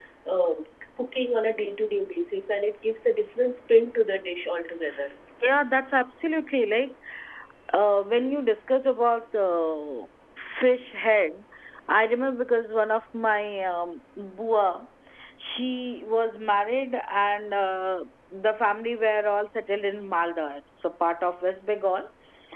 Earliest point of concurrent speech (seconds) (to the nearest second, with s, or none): none